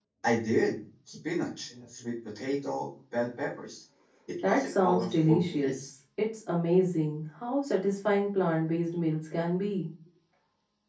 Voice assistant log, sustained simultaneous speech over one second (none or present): present